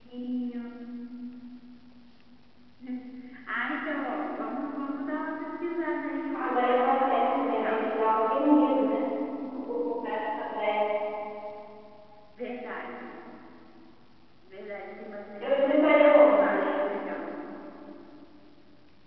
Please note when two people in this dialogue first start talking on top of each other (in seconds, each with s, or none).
6.3 s